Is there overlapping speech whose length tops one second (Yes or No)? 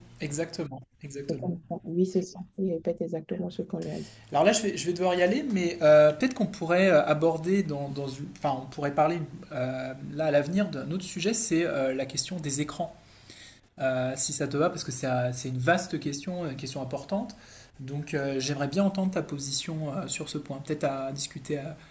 No